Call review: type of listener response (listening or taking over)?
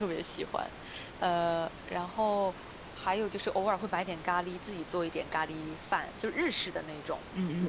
taking over